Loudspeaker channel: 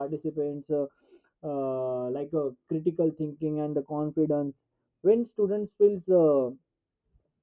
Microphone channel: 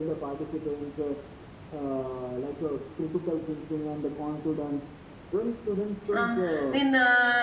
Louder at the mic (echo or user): user